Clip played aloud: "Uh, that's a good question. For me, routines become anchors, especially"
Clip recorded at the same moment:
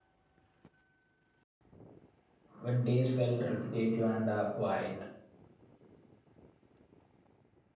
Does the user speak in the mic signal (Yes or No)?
Yes